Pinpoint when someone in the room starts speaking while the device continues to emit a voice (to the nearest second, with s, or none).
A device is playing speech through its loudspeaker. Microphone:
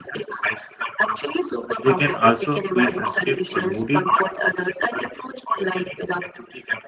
2 s